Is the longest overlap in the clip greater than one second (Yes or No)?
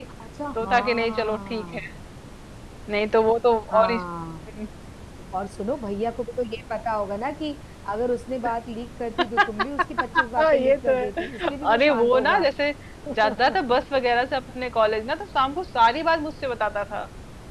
Yes